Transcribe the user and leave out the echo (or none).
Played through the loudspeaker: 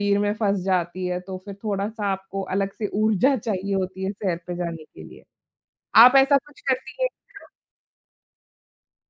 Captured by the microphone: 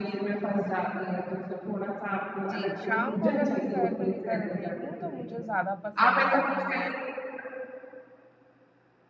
जी, शाम को अगर मैं सैर पे निकल रही हूँ तो मुझे ज़्यादा पसंद है कि मैं